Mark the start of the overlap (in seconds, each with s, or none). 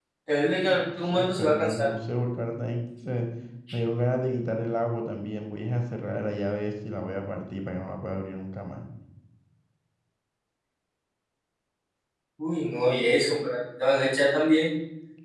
0.7 s